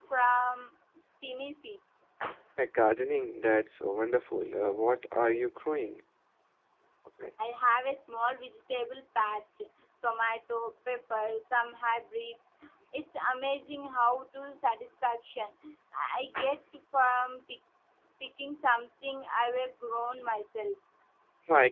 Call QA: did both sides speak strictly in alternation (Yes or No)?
Yes